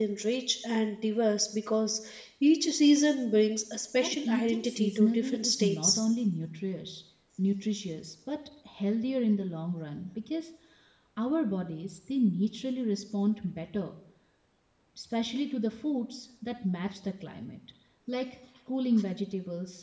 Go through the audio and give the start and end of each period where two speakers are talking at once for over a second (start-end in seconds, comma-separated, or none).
4.0-6.0